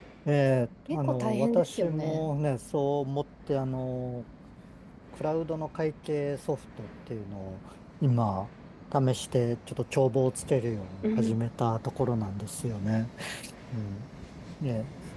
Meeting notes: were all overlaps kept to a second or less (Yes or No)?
No